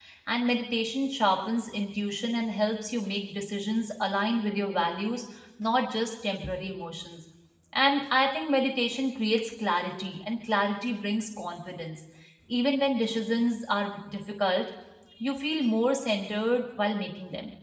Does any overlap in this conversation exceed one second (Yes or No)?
No